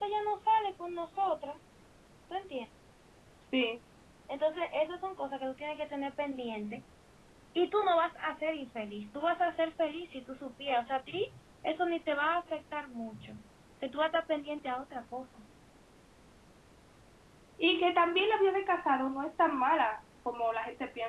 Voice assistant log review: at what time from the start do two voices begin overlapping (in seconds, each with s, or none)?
none